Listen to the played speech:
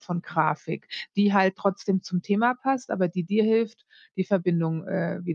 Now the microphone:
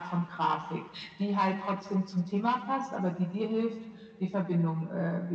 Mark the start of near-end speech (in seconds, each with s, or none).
none